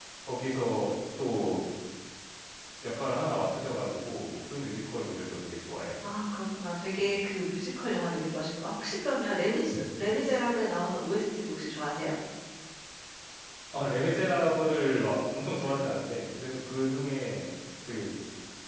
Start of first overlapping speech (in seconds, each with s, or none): none